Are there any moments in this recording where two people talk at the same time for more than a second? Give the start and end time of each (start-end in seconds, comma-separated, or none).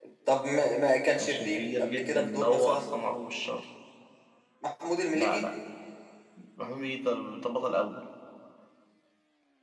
1.2-2.9